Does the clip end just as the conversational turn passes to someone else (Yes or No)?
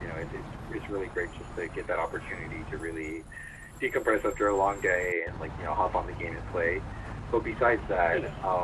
No